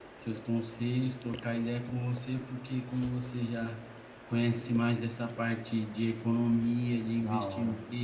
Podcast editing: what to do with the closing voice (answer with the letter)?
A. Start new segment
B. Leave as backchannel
B